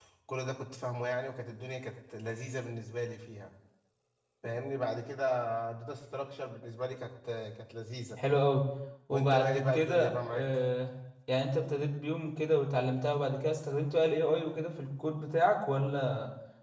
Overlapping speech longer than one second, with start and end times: 9.1-10.5

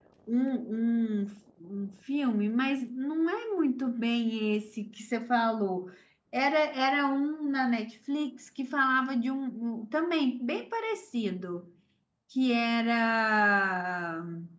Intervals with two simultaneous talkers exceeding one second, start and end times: none

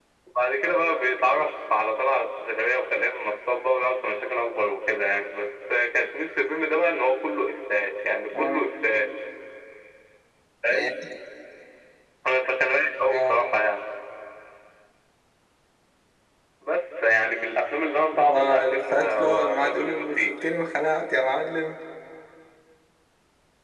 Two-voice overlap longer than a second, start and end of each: 18.1-20.3

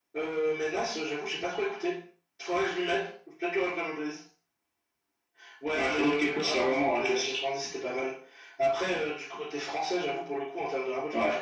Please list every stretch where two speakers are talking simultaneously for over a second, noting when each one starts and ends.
5.7-7.4

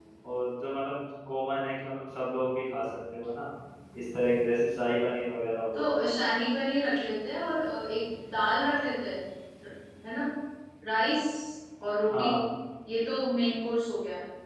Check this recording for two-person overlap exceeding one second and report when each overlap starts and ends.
none

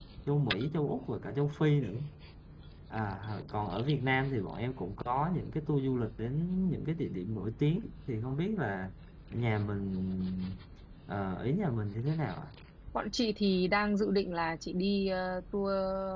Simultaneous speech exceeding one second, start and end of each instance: none

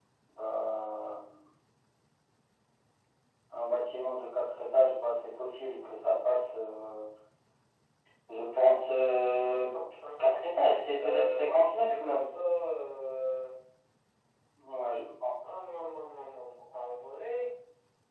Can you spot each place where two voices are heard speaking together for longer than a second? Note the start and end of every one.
11.0-12.3

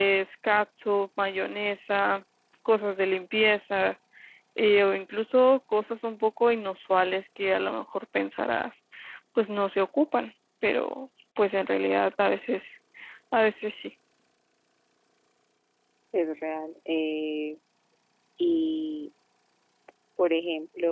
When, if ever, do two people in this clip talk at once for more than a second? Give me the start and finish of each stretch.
none

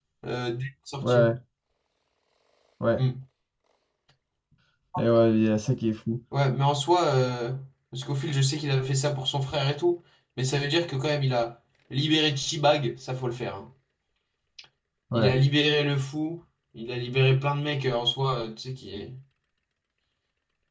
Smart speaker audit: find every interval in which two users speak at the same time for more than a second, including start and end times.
none

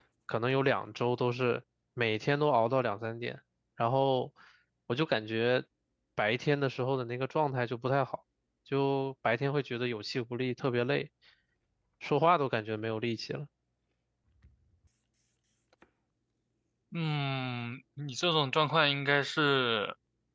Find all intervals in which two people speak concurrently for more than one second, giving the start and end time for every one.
none

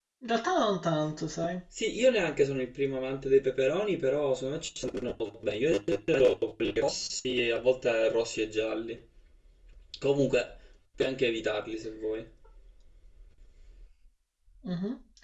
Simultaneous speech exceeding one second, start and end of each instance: none

